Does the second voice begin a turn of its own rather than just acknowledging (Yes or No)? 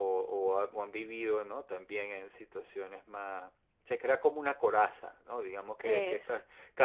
No